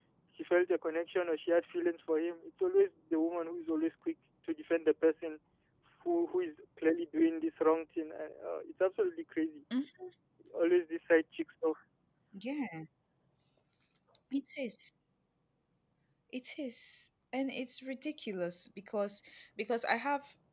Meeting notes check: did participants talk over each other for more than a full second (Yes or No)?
No